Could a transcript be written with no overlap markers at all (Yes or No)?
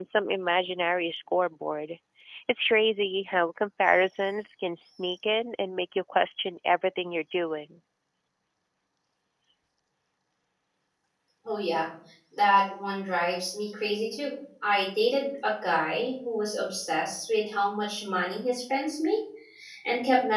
Yes